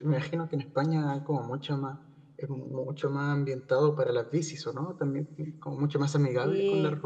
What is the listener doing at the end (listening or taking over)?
listening